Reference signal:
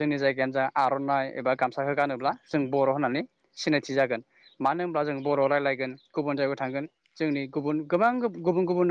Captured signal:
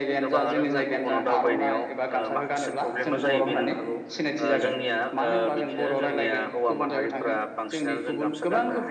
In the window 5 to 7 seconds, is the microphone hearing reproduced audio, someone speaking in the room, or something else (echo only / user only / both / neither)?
both